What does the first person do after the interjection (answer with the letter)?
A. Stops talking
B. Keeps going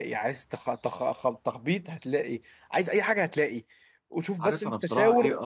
A